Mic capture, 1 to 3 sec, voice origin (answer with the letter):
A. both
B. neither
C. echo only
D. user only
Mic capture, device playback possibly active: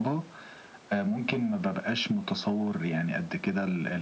C